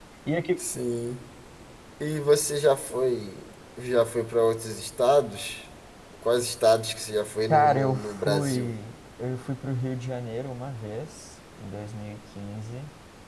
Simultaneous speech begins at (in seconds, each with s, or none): 7.5 s